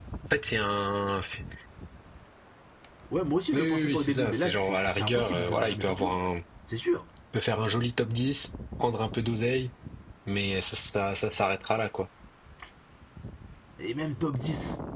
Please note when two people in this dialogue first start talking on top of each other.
3.5 s

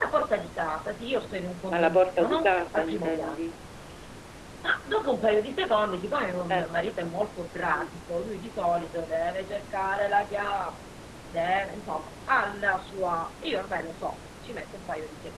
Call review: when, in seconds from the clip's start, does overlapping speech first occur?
1.7 s

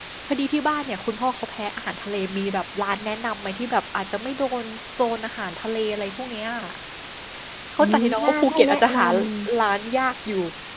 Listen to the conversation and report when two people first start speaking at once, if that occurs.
7.8 s

